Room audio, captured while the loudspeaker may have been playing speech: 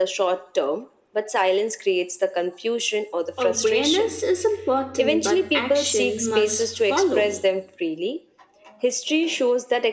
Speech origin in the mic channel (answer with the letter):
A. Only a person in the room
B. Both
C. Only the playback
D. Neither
B